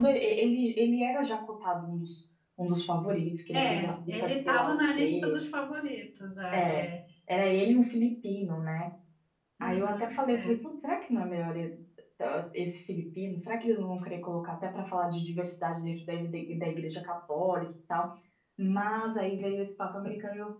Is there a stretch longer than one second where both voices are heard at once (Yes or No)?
Yes